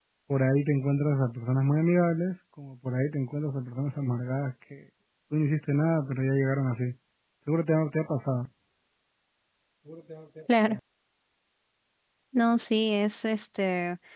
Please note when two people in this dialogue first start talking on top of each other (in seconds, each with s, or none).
none